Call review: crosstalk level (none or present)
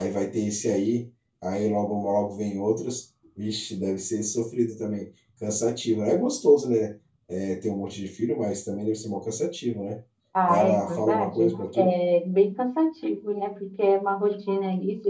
present